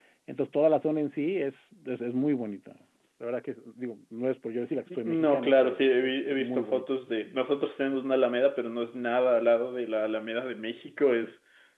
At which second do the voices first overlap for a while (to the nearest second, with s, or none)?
5 s